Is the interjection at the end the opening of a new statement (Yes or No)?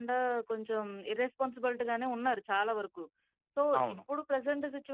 No